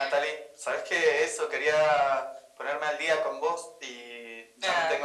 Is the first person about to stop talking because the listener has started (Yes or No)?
No